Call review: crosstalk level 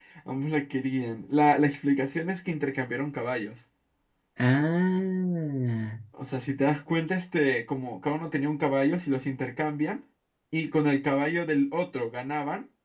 none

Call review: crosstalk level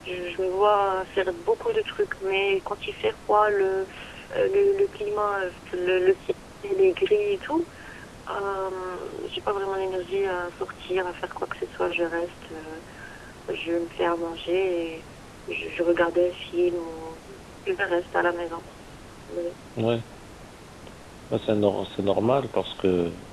none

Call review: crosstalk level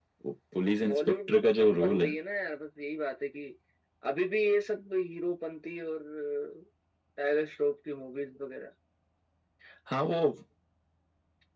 present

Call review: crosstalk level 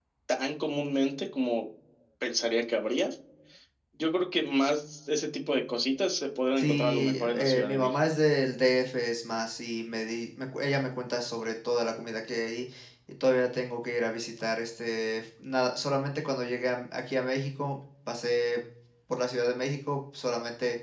present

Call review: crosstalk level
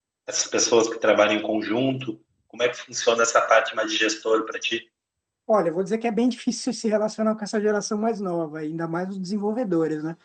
none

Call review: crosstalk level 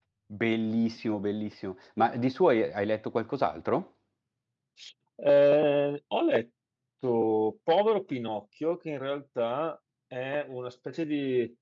none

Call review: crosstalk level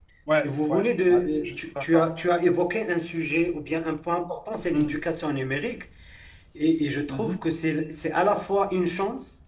present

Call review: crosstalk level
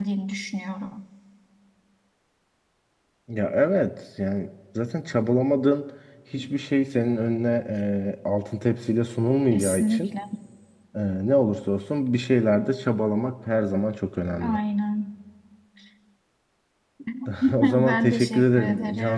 present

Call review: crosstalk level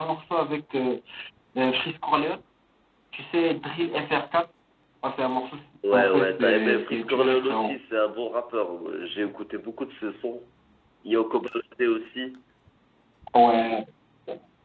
present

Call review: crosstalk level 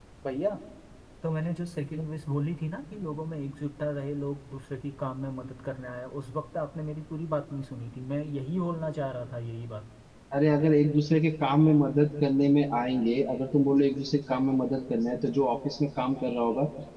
none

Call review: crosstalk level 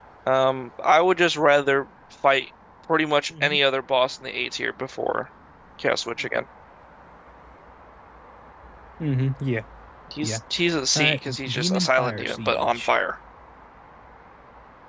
present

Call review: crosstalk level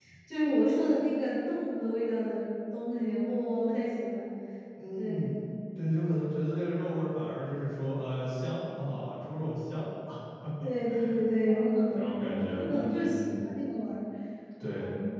present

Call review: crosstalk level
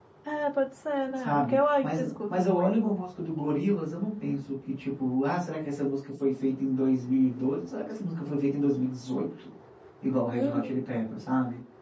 present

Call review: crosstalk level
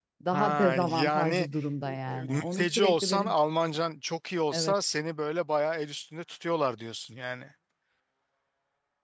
present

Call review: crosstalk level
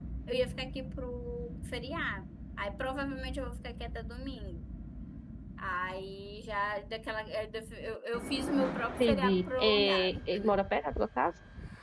present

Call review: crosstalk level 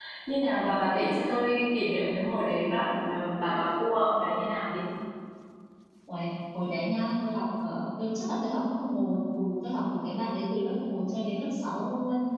none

